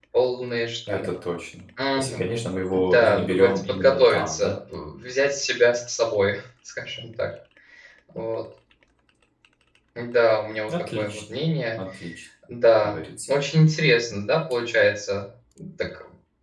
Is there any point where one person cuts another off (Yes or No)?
Yes